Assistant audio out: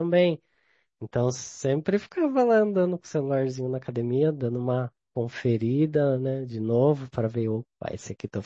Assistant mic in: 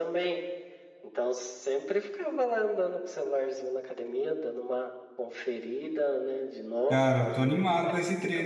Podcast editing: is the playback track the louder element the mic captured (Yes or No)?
No